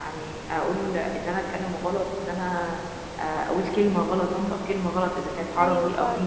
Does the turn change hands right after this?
No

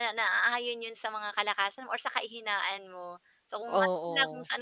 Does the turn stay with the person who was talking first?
Yes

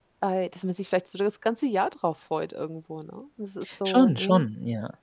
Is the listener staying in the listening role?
No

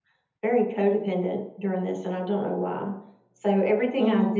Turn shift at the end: No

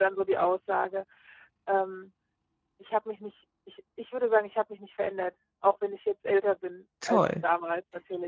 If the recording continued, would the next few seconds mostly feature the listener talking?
No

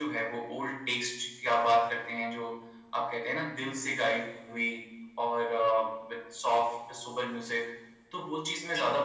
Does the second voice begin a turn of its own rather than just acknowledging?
Yes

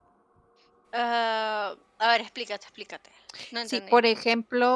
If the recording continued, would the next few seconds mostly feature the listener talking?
Yes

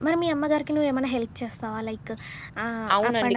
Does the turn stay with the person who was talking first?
No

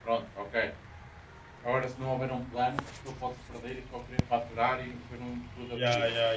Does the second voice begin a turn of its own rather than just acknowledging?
Yes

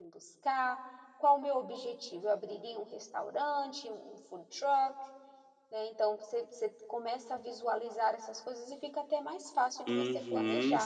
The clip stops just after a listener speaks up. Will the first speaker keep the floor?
No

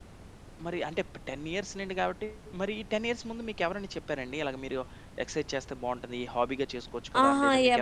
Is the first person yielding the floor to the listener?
Yes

